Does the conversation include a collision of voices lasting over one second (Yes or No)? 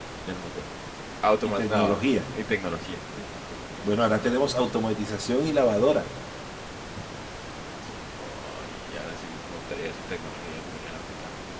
No